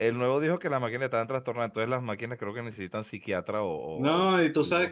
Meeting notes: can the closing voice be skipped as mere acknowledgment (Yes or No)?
No